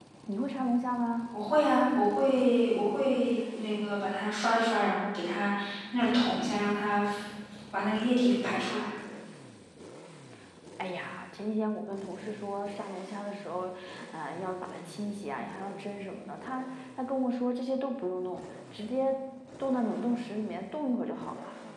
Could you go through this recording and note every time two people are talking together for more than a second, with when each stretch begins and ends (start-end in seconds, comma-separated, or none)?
none